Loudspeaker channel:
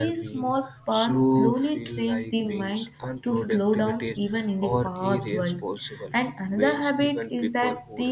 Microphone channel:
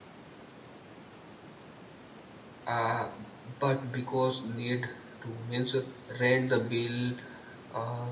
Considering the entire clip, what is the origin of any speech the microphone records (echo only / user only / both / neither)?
user only